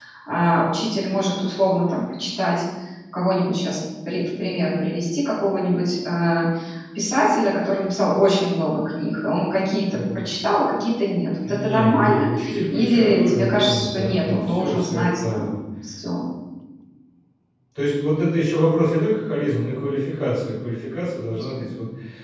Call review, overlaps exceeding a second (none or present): present